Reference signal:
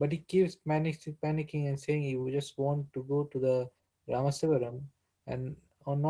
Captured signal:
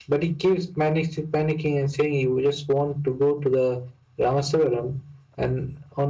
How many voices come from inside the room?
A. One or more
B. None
B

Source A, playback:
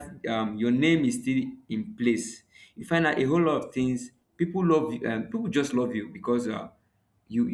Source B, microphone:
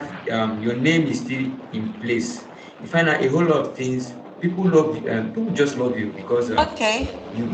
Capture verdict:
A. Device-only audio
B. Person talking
B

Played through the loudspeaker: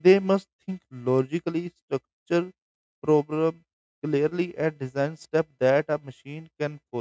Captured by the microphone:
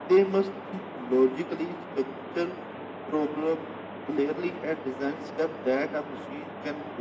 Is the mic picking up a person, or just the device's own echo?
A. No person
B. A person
A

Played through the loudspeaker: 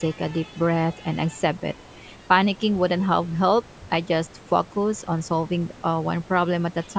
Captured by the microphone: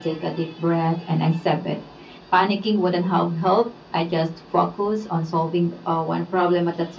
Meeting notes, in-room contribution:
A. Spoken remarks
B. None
B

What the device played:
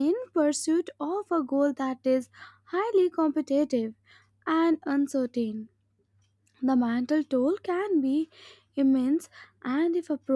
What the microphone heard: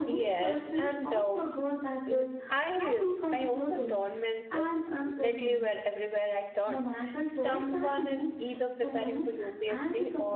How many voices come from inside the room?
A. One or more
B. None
A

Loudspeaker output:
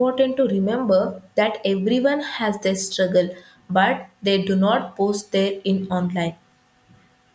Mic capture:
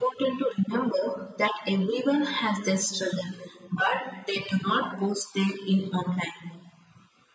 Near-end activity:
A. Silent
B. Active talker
A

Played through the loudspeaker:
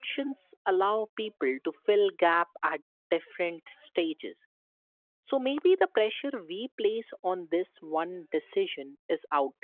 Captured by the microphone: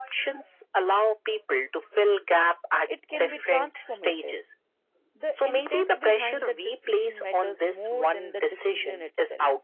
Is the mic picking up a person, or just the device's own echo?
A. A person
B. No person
A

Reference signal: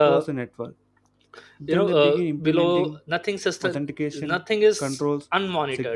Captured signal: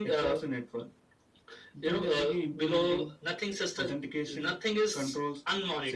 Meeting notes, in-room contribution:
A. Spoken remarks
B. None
B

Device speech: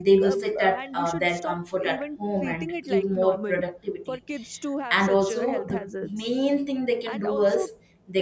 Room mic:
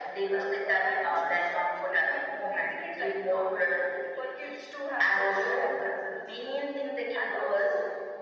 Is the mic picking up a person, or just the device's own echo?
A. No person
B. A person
A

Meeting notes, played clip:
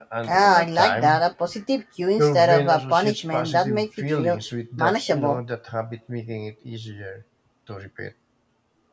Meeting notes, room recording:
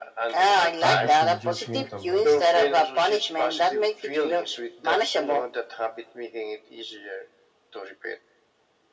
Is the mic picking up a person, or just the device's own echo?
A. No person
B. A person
B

